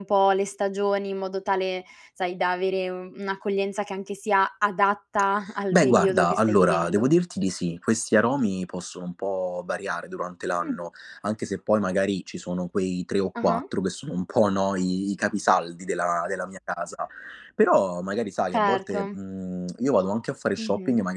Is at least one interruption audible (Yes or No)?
Yes